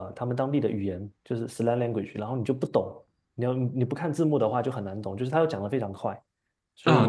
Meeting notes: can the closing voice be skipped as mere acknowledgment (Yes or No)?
No